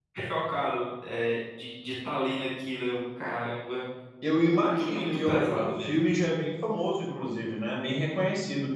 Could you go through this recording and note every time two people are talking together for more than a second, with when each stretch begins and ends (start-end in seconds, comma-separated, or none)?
4.6-6.0